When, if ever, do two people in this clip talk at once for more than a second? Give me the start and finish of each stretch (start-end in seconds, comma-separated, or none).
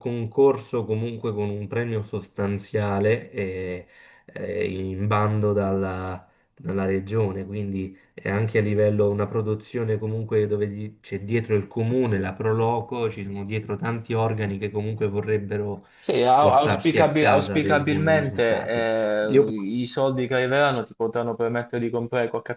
16.4-18.8